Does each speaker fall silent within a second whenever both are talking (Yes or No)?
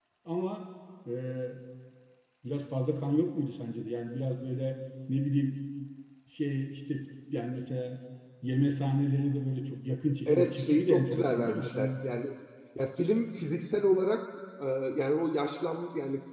No